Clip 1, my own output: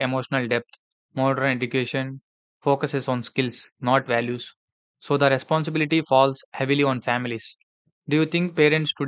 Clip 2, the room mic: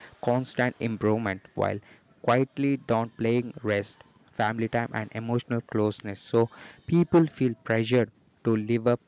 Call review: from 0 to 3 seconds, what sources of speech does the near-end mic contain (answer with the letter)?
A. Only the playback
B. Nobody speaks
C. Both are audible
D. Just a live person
D